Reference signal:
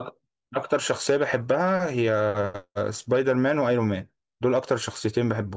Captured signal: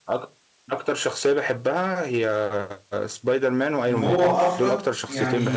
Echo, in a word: present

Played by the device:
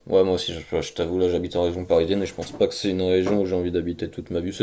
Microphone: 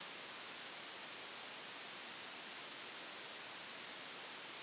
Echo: none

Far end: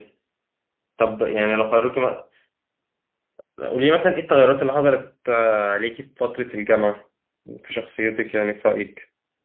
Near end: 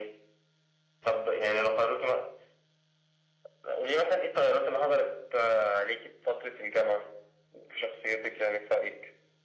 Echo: present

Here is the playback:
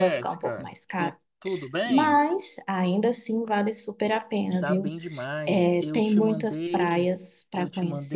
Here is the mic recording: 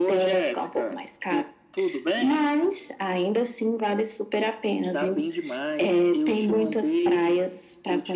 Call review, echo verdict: present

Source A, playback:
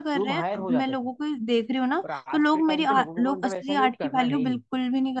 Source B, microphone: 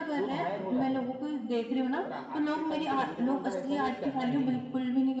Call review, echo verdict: present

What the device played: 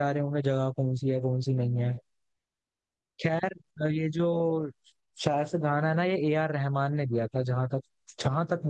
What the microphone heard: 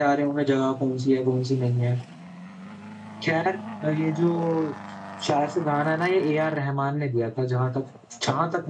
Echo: present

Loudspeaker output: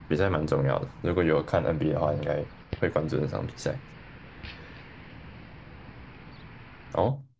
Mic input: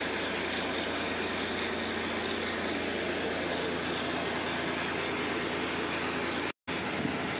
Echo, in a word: none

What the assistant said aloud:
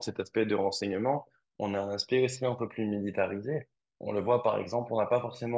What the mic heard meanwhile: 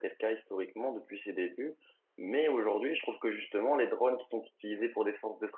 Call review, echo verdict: none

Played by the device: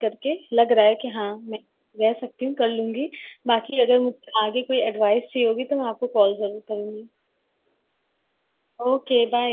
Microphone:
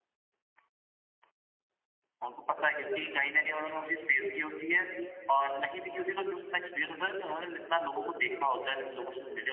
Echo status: none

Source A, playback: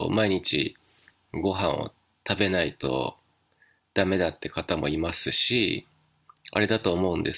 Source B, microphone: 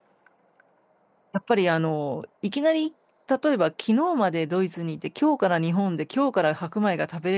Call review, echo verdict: none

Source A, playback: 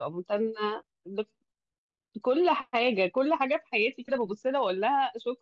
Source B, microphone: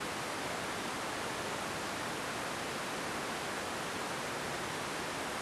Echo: none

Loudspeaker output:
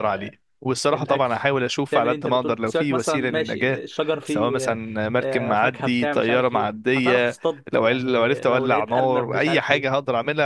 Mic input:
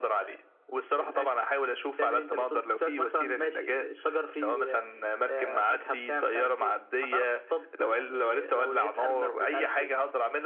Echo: present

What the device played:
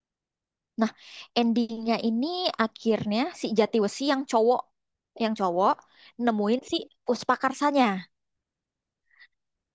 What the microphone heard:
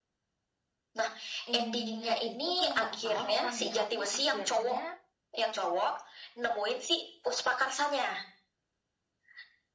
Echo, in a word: present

